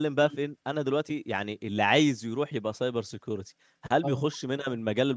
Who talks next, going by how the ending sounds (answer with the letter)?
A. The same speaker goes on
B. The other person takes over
A